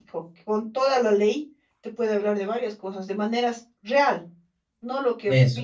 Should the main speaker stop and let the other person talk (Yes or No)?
No